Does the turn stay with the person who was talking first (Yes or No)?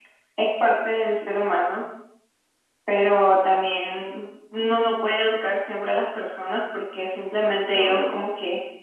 Yes